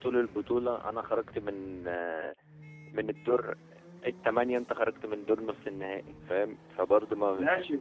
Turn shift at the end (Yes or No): Yes